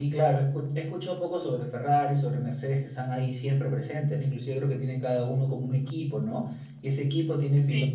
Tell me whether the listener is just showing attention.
Yes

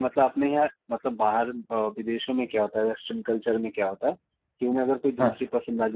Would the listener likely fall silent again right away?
Yes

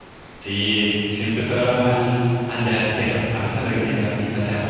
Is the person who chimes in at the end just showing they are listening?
Yes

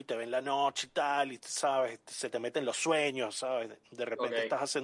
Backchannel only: Yes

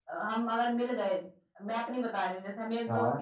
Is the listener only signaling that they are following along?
Yes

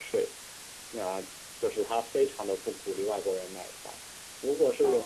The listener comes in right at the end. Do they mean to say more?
No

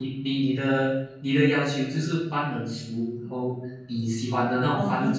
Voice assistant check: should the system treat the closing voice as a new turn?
No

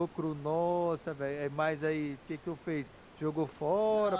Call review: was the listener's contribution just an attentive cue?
No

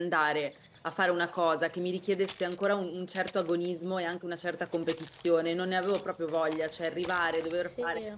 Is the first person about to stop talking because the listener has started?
No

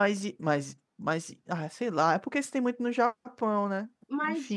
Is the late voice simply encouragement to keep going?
No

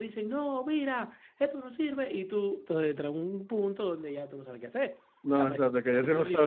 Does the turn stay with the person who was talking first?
No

